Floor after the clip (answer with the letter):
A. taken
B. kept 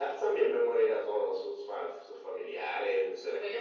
A